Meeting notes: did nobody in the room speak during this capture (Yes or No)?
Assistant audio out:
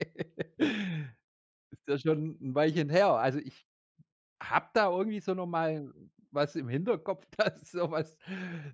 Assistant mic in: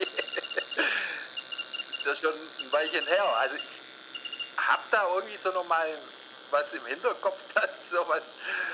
Yes